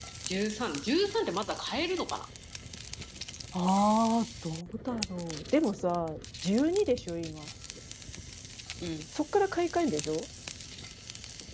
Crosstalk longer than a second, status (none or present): none